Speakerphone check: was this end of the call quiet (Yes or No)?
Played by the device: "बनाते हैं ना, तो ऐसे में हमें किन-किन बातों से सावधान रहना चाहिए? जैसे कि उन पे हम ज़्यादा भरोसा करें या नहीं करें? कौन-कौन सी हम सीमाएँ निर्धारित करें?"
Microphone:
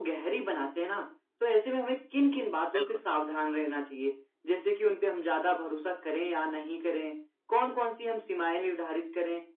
No